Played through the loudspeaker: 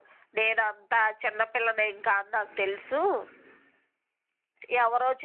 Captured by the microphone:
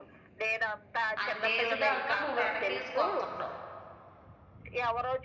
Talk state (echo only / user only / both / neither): both